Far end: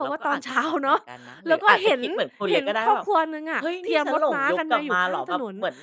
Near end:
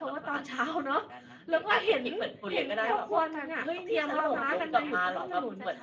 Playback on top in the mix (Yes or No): Yes